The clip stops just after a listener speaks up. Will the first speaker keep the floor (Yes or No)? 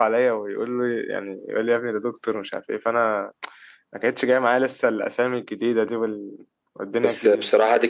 No